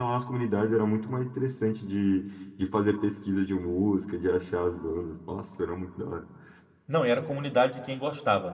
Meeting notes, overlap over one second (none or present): none